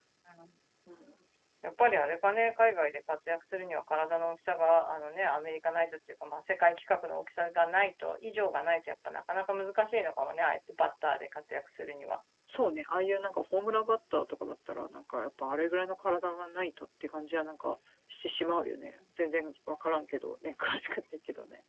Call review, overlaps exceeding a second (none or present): none